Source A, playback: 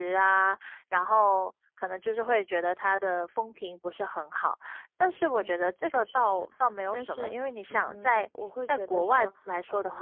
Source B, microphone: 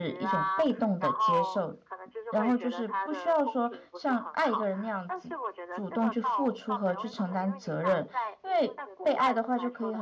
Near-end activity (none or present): present